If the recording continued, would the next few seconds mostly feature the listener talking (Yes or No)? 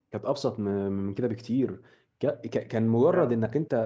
No